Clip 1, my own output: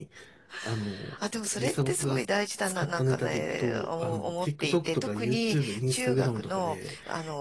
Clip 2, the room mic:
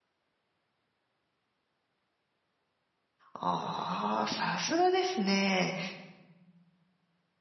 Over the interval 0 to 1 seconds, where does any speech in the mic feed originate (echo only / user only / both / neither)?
neither